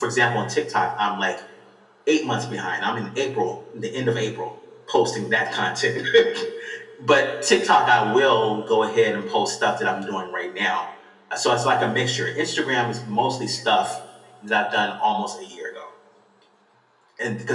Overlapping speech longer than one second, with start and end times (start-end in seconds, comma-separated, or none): none